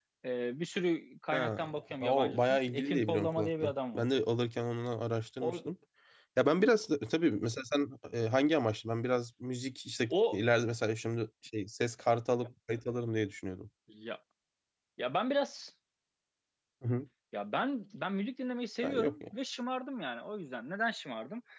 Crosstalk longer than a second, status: present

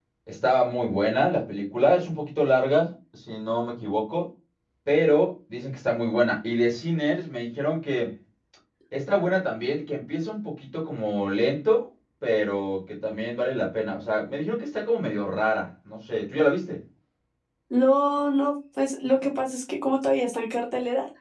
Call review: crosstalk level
none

